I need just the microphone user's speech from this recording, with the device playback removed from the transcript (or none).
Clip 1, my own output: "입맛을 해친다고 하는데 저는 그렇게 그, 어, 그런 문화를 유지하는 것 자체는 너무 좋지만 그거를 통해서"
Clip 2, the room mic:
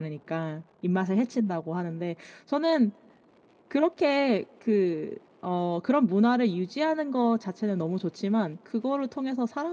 none